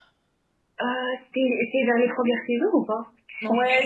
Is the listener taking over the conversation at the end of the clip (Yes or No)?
Yes